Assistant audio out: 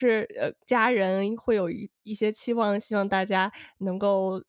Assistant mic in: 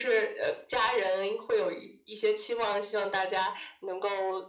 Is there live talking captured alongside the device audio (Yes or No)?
No